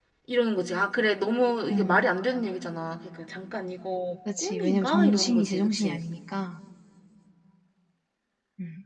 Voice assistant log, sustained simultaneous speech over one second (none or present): present